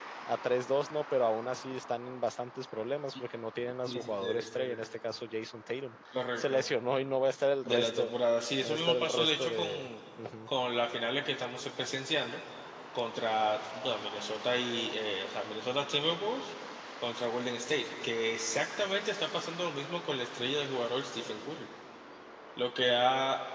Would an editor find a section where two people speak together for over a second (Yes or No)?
Yes